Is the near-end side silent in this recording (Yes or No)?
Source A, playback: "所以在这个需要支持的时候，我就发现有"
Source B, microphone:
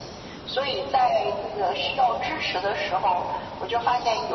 Yes